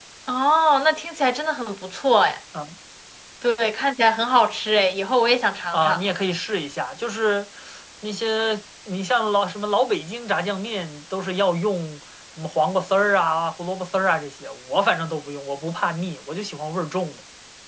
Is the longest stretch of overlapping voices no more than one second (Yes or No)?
Yes